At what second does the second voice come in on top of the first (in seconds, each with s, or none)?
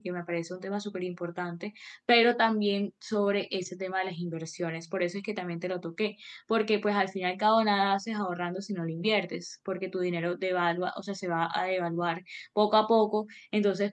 none